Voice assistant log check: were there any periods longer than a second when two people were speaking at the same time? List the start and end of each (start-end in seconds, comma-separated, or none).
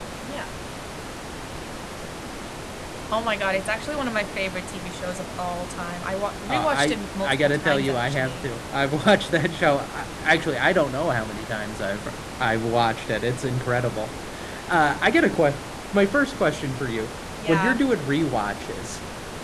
6.5-8.5